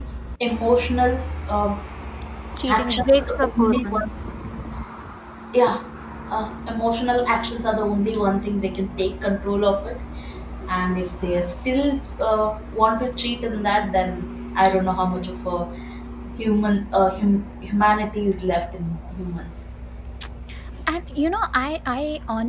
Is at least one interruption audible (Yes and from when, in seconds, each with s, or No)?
Yes, from 2.7 s